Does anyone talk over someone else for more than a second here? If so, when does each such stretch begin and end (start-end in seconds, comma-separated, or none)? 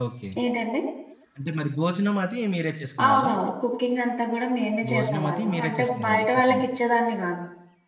4.9-6.7